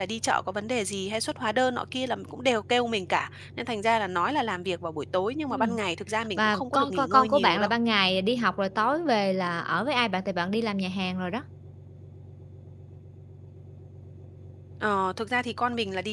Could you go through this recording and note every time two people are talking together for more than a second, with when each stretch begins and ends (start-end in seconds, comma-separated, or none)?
6.4-7.7